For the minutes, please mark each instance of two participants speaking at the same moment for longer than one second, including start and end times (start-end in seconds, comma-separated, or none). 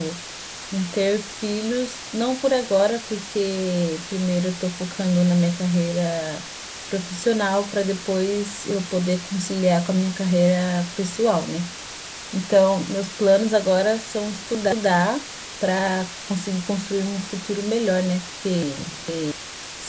none